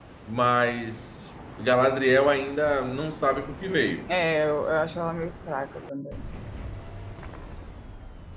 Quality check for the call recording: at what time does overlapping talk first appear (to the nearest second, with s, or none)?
none